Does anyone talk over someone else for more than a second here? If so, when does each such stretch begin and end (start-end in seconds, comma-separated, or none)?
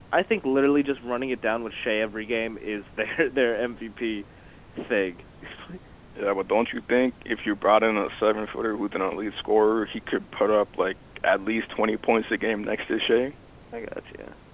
none